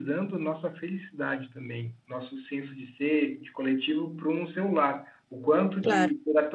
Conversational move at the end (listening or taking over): listening